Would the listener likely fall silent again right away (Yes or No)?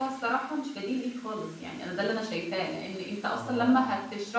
Yes